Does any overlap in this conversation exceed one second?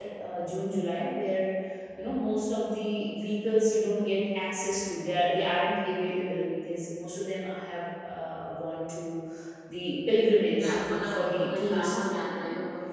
Yes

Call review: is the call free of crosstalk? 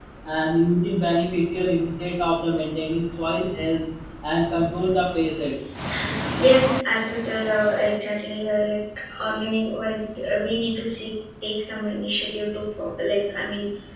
Yes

